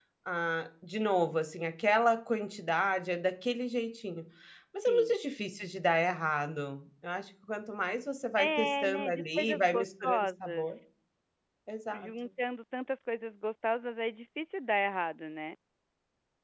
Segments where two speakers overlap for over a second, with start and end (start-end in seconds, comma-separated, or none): 8.4-10.7